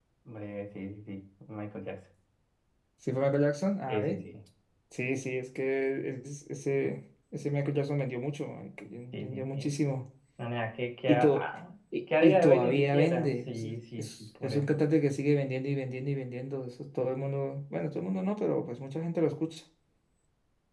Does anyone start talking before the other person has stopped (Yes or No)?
Yes